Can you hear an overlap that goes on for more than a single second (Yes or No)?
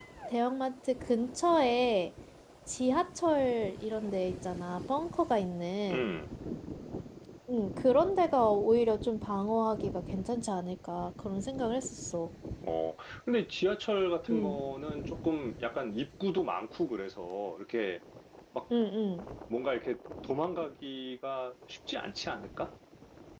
No